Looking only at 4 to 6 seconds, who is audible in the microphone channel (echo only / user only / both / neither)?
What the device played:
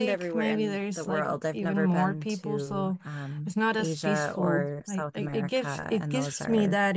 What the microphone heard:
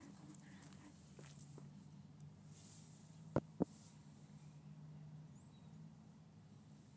neither